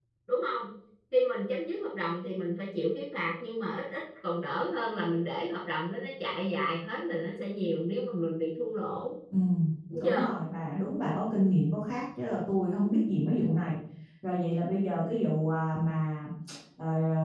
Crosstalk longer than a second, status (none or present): none